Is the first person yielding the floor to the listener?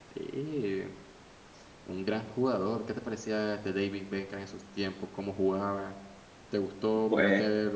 No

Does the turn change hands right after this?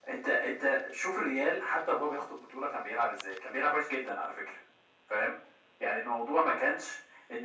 No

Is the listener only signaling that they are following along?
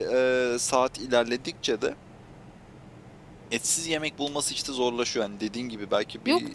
No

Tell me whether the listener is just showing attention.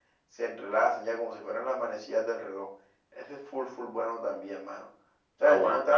Yes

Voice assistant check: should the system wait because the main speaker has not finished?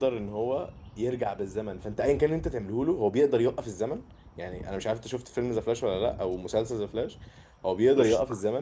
Yes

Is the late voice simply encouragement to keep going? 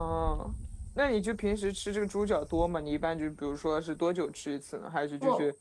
Yes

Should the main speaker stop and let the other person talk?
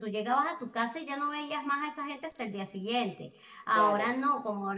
No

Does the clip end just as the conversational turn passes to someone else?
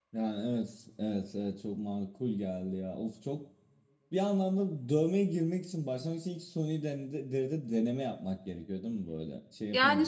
Yes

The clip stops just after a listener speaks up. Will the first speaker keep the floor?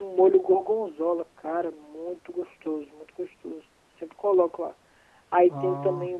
Yes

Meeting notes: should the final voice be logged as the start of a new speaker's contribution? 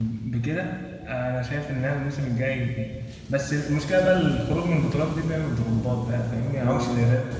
No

